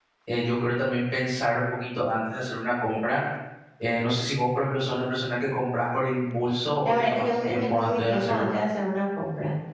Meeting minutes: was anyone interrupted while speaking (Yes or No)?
Yes